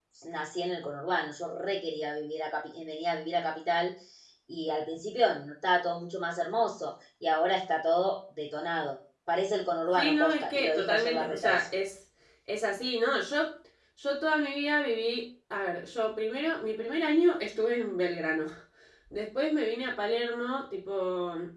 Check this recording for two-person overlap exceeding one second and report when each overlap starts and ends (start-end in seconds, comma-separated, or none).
10.0-11.7